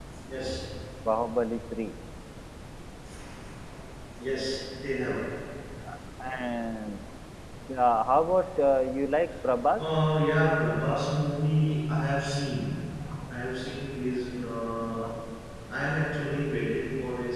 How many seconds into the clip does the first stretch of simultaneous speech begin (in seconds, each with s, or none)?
none